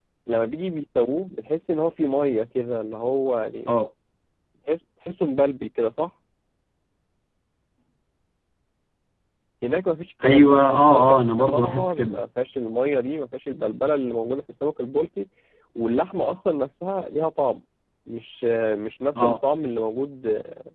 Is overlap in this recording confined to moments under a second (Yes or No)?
No